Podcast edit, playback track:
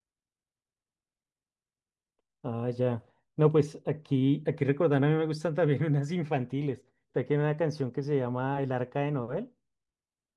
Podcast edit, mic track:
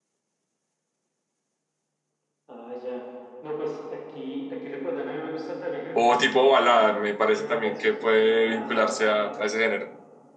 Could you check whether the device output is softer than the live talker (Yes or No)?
Yes